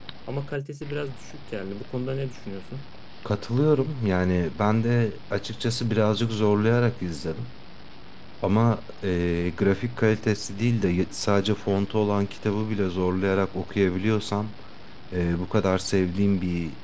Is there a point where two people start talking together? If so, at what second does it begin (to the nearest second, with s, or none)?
none